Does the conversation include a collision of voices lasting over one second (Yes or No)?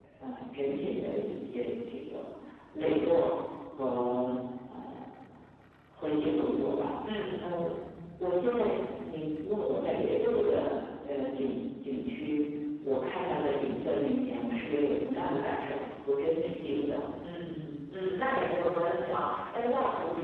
No